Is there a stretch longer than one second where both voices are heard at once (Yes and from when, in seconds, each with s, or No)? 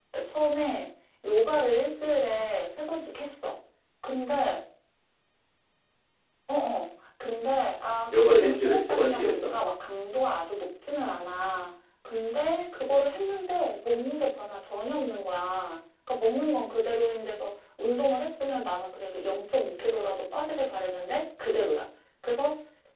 Yes, from 8.1 s